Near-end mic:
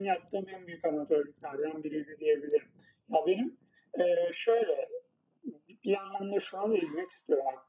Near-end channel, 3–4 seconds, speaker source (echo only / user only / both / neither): echo only